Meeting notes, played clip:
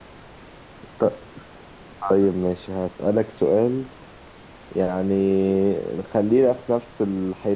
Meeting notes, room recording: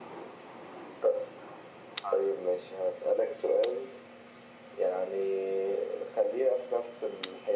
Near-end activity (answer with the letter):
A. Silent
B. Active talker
A